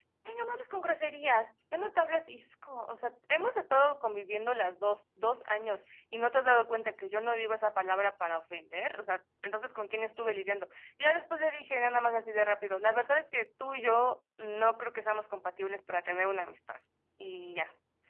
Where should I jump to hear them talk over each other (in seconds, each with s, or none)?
none